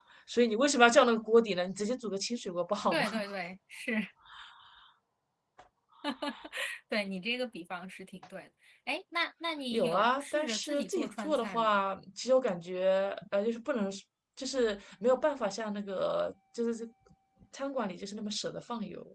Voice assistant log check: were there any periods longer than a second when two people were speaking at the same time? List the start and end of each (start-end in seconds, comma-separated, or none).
9.7-11.8